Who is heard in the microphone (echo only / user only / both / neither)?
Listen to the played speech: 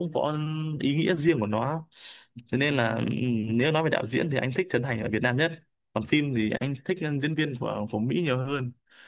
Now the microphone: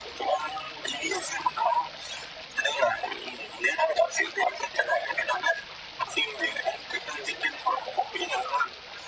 echo only